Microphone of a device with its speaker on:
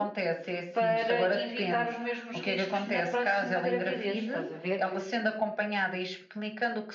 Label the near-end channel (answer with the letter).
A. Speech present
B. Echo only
A